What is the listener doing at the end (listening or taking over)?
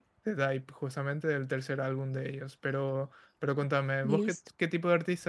listening